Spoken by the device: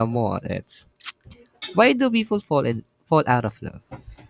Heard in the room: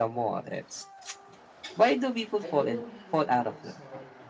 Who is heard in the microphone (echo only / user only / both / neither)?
both